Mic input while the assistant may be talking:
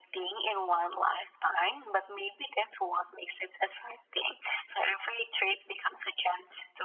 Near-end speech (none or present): none